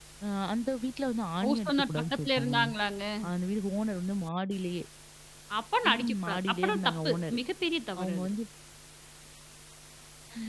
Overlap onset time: 1.4 s

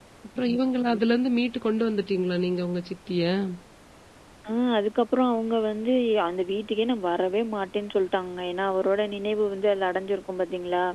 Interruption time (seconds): none

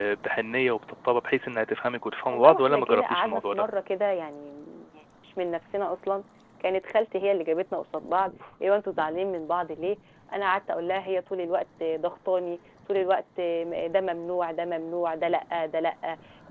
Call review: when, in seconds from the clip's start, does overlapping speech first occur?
2.3 s

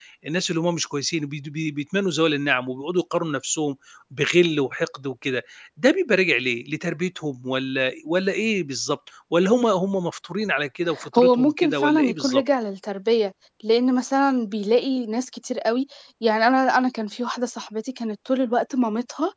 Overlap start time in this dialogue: 11.0 s

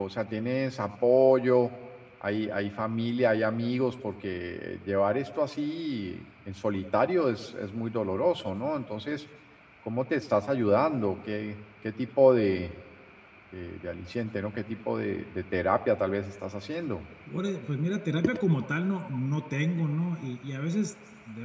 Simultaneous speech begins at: none

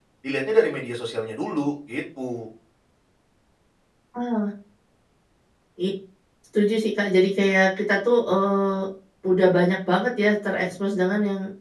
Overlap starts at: none

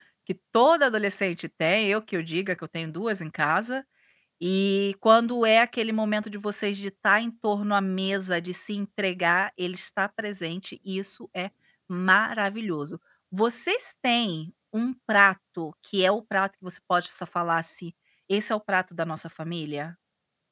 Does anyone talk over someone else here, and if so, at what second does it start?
none

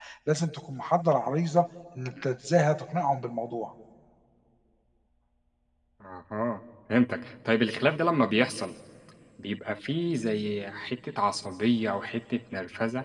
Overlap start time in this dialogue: none

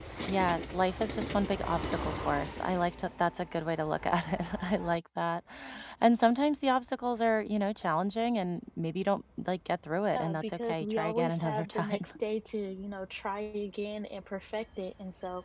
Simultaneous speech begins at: 10.2 s

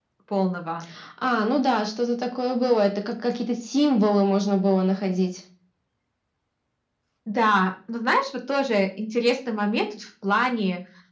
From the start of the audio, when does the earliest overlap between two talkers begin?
none

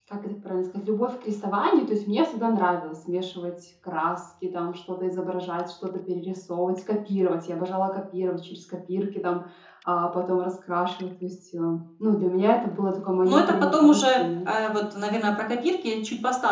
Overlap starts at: 13.2 s

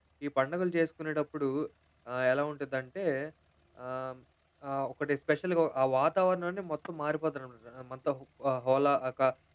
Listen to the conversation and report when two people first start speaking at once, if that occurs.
none

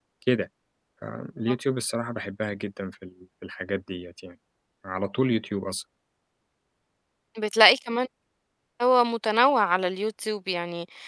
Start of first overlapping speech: none

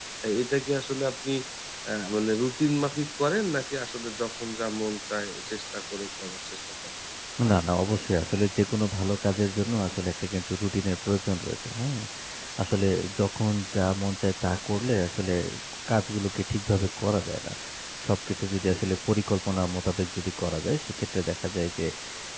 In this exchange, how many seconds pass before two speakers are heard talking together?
none

